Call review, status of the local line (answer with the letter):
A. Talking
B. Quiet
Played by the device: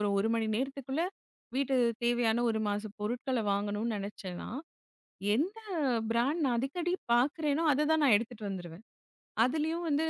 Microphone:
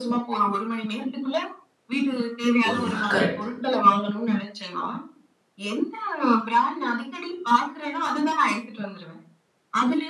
A